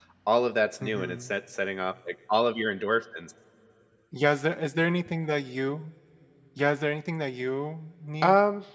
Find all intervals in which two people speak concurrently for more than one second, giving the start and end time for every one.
none

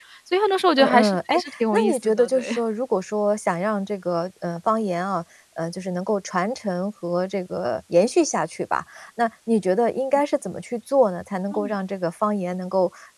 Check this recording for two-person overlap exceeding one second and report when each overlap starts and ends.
0.8-2.5

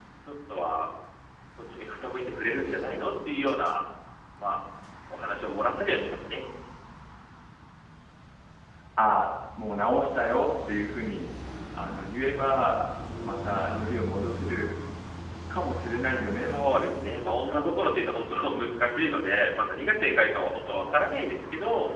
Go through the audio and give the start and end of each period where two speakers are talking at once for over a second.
16.3-17.7

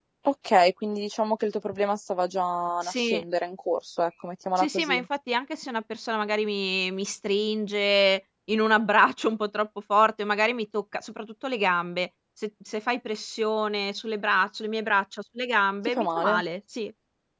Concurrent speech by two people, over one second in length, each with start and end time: none

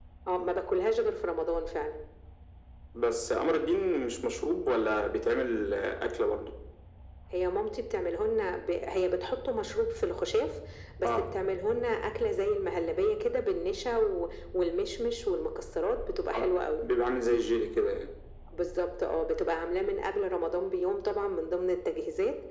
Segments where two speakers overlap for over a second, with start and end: none

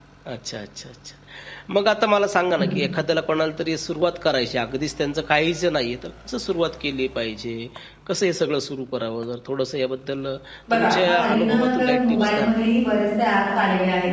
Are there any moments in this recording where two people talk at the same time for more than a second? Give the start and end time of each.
10.7-12.5

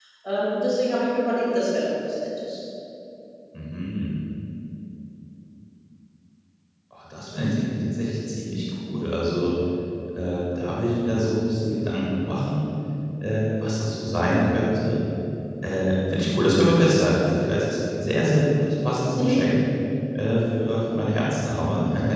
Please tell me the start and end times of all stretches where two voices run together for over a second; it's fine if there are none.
none

